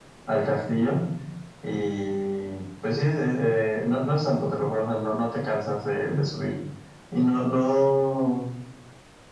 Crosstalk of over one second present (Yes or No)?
No